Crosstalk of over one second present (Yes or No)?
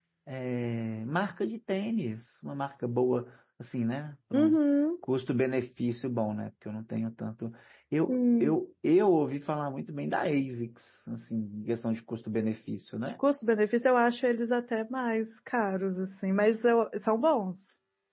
No